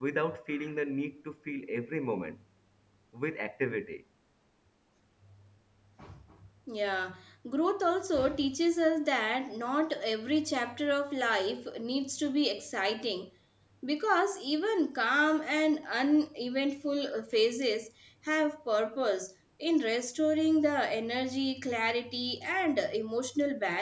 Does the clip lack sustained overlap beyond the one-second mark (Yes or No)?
Yes